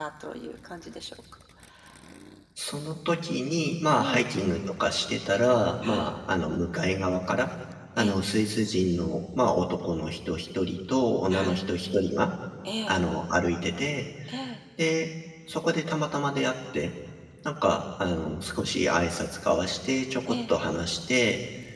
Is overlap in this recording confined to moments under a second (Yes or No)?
Yes